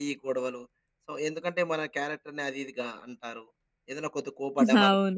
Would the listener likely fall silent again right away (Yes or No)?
Yes